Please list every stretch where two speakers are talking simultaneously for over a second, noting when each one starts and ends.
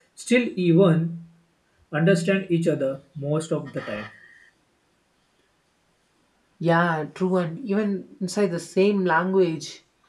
none

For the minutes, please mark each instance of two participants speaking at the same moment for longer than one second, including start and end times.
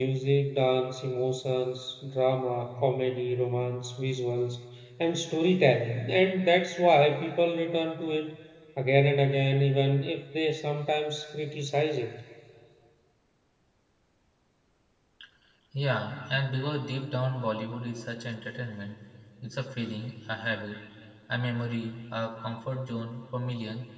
none

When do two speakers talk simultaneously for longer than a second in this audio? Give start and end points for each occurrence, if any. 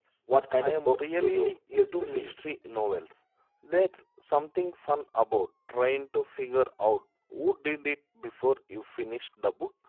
0.6-2.3

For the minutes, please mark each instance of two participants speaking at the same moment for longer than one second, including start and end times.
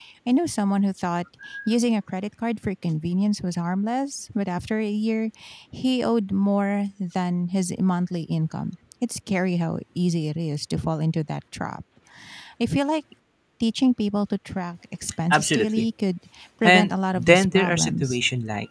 16.6-18.2

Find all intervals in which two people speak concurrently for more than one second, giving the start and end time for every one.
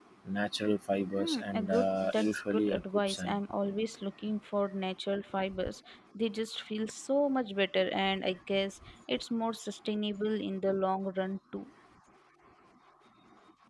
1.2-3.4

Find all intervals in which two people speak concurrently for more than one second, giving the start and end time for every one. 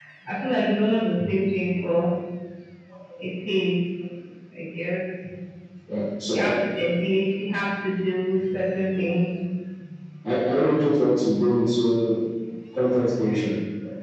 none

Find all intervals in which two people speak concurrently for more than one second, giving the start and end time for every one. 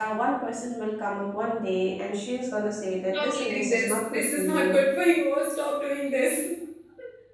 3.1-4.8

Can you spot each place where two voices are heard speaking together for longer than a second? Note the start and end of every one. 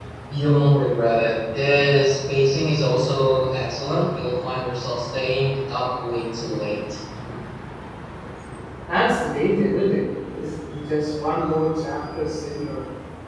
none

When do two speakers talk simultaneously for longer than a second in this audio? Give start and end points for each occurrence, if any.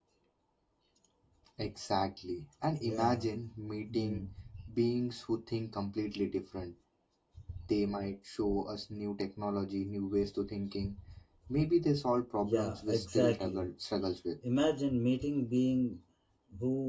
12.4-13.7

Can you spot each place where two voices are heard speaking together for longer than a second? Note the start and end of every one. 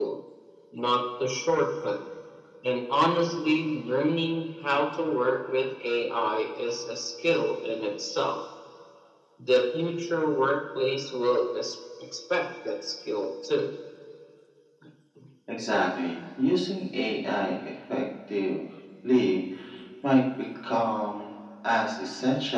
none

